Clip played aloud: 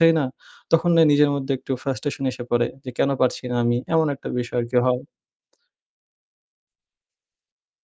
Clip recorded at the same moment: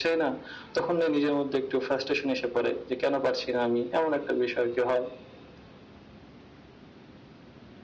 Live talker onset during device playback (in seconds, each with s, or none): none